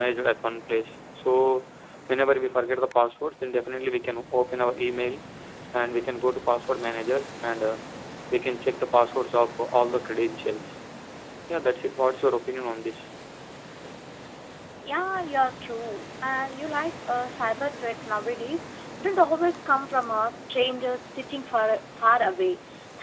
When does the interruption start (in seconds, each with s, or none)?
none